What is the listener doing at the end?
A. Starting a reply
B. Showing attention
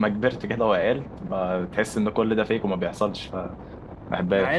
A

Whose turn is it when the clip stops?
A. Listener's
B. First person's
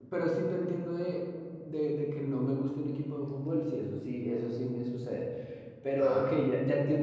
B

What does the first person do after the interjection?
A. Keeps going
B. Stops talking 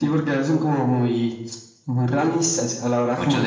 B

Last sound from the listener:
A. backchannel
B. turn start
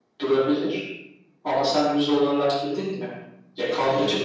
A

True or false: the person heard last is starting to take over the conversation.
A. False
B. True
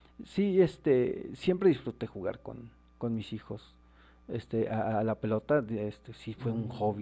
A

